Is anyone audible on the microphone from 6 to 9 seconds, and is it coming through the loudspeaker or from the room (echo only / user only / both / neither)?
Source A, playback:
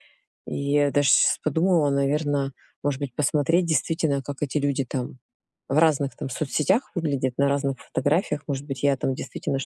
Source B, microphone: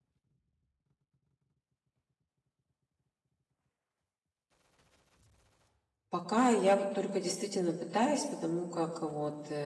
user only